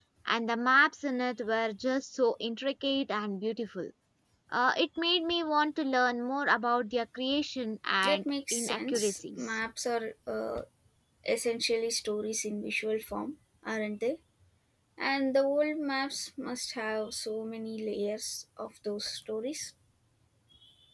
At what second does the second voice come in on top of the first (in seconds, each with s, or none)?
8.0 s